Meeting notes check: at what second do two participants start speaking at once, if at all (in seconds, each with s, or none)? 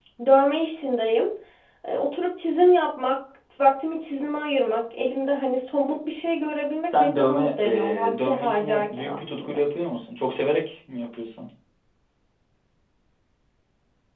6.8 s